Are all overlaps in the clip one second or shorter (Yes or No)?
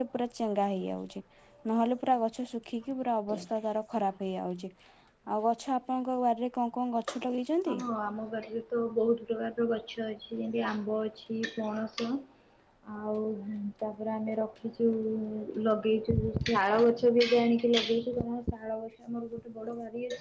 Yes